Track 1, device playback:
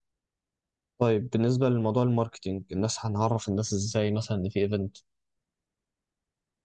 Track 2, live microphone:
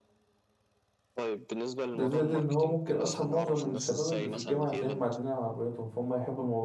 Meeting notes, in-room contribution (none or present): present